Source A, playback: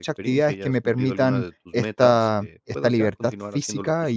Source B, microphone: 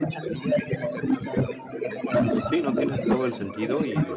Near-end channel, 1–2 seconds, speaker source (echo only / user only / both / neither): echo only